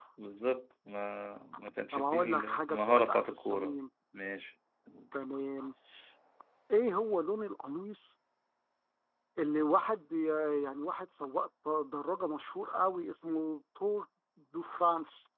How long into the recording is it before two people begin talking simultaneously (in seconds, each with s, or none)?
1.9 s